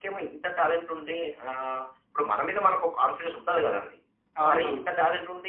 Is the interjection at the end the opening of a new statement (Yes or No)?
No